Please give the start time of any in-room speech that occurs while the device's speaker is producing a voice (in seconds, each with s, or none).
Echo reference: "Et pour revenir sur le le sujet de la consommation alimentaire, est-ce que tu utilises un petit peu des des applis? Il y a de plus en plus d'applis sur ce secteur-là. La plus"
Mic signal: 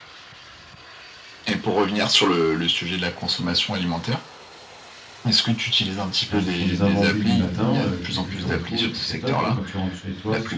6.3 s